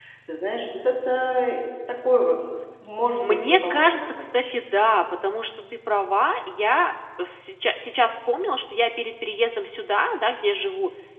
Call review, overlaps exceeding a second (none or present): present